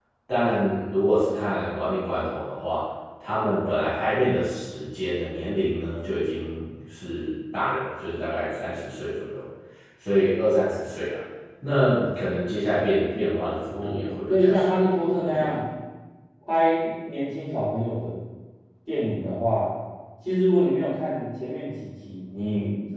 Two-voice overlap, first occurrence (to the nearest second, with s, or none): 14 s